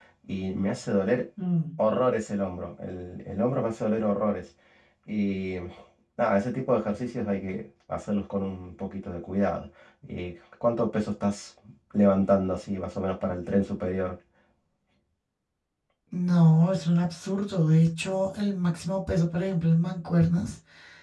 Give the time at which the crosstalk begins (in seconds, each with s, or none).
none